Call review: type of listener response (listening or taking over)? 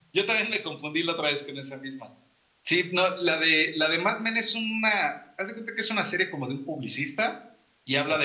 listening